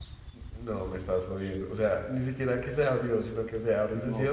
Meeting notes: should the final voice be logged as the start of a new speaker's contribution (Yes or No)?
Yes